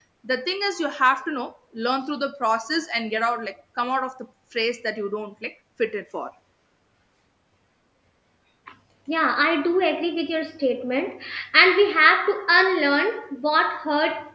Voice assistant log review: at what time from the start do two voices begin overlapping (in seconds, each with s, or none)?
none